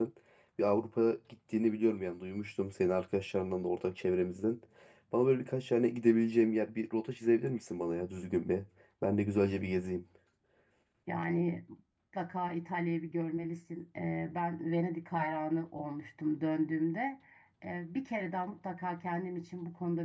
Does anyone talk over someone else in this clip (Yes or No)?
No